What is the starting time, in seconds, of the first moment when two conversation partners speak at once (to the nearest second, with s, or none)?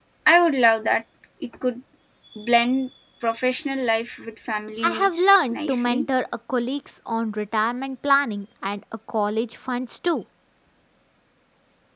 5 s